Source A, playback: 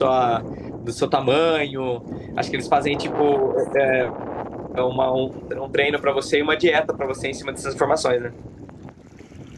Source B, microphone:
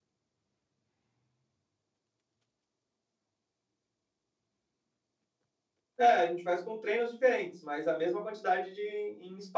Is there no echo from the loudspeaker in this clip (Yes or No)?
Yes